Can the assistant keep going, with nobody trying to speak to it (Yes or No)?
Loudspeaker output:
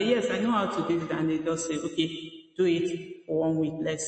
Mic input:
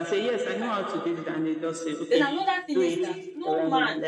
No